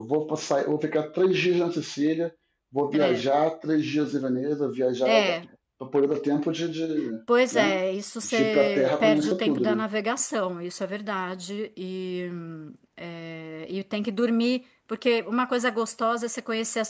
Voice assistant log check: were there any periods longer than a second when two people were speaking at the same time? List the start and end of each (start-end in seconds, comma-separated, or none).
8.2-9.8